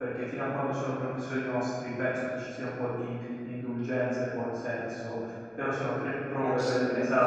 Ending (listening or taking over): taking over